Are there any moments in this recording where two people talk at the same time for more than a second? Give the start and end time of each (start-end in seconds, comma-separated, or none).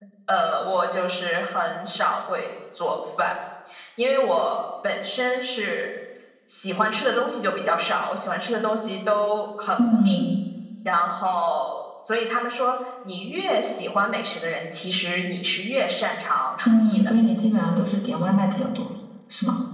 none